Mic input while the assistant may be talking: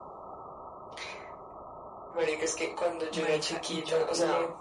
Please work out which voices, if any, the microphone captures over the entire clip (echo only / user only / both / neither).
both